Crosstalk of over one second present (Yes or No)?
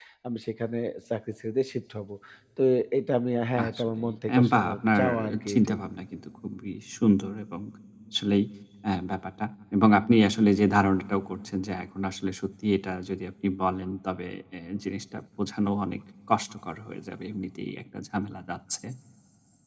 Yes